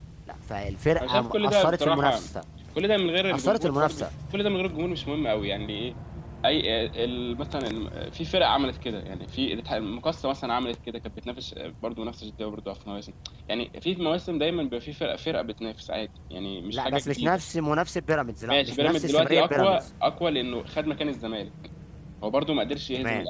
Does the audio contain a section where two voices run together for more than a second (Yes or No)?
Yes